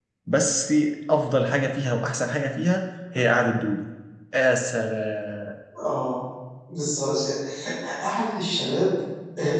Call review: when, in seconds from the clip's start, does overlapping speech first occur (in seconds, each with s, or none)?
none